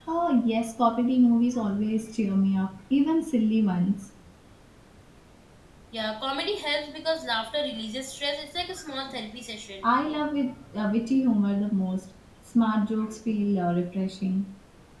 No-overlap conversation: Yes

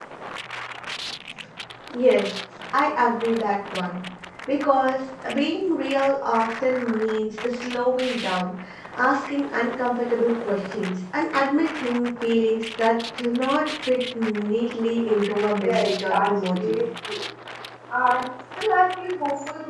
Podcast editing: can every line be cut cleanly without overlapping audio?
No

